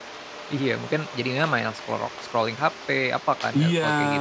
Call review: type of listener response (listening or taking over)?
taking over